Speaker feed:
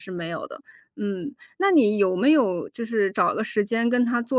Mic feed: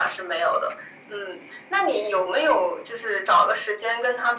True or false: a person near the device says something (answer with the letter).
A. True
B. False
B